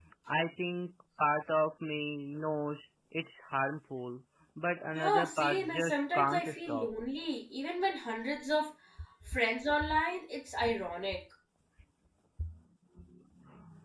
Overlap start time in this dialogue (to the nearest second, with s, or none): 5 s